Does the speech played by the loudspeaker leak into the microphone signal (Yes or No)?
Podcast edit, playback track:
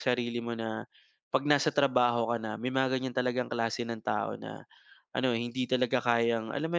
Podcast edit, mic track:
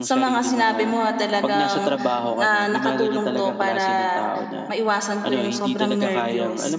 Yes